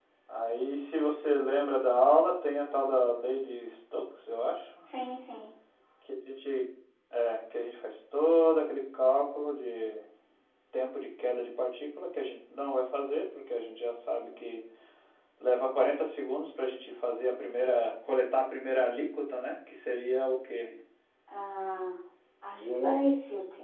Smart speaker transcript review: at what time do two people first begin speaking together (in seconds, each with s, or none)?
none